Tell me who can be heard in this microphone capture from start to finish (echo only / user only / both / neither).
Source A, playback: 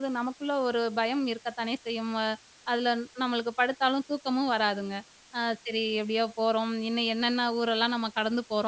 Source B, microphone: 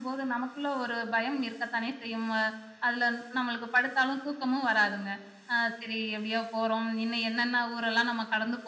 echo only